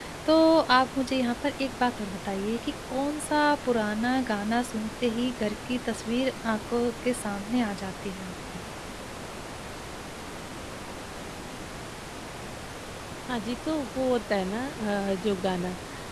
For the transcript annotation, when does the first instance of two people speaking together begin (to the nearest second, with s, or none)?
none